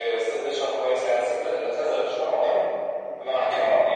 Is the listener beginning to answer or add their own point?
No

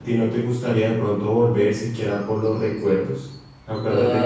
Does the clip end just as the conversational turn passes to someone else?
Yes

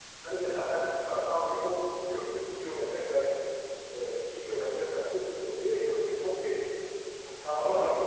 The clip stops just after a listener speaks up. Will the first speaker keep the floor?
Yes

